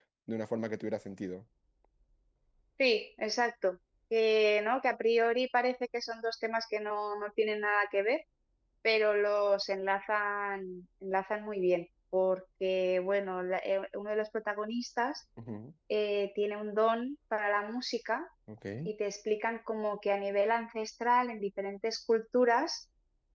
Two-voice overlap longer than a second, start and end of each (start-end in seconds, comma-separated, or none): none